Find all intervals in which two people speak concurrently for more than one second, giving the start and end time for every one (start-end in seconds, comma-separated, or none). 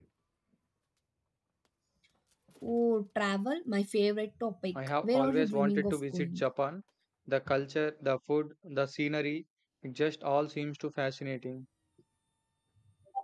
4.8-6.4